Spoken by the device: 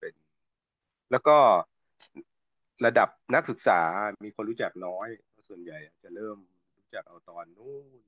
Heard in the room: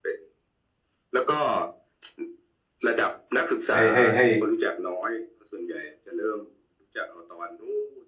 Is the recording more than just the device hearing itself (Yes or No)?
Yes